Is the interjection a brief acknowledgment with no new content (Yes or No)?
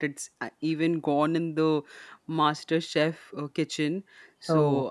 Yes